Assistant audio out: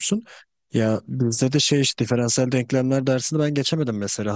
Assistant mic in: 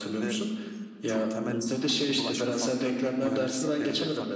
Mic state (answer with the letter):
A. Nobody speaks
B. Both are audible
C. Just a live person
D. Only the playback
B